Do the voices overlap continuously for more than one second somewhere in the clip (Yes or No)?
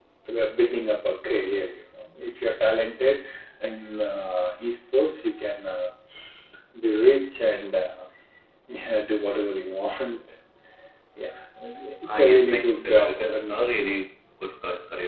Yes